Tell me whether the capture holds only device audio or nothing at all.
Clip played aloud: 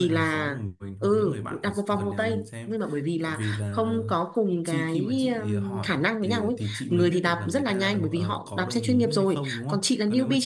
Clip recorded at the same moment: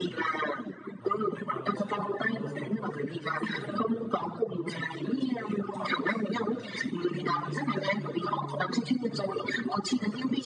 No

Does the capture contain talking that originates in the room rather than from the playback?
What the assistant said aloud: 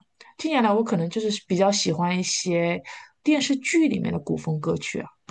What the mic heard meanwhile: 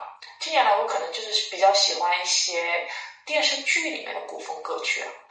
No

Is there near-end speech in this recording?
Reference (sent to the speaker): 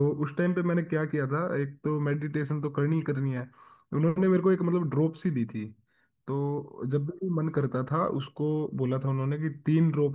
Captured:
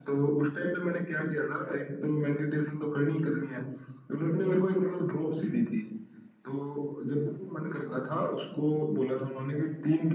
No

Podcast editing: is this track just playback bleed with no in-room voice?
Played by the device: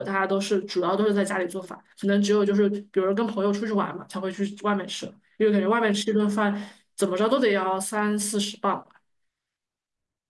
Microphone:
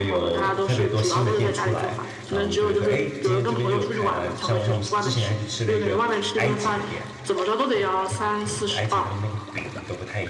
No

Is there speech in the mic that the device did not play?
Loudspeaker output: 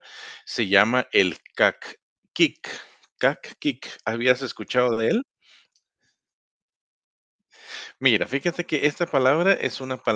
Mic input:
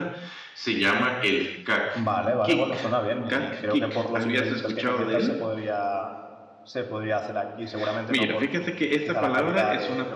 Yes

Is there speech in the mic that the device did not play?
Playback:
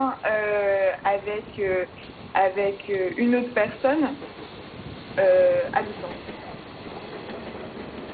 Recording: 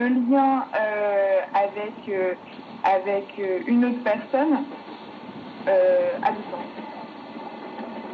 No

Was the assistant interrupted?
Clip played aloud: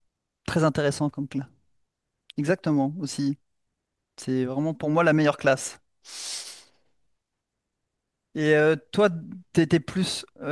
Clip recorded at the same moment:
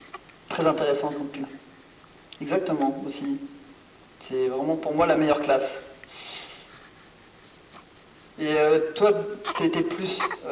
No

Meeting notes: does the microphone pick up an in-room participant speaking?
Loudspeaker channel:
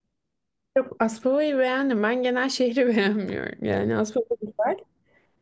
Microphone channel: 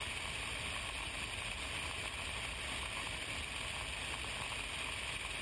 No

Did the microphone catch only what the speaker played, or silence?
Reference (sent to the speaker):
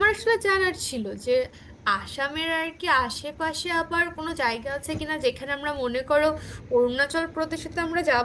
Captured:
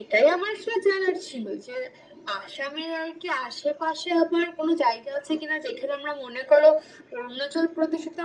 Yes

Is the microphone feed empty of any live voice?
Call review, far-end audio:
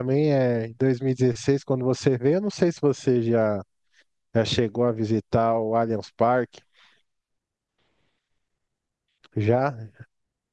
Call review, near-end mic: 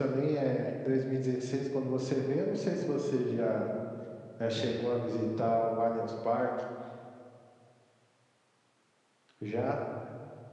Yes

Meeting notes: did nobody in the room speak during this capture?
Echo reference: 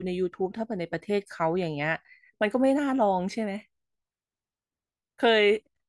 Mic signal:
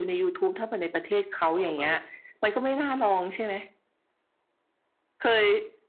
No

